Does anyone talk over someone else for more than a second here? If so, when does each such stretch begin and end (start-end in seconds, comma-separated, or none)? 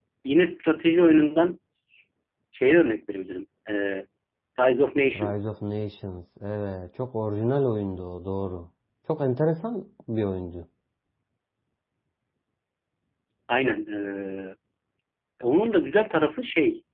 none